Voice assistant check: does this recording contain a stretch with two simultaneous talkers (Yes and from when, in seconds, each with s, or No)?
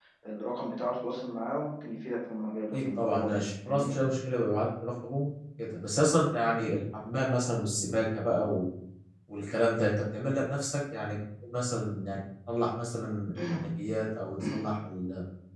Yes, from 2.7 s